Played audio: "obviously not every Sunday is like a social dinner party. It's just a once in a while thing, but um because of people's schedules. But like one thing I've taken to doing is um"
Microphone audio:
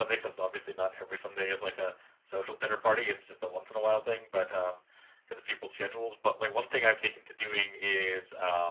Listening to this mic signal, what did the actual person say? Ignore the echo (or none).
none